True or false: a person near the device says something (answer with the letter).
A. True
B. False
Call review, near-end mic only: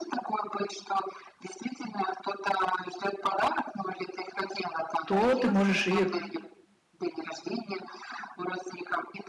A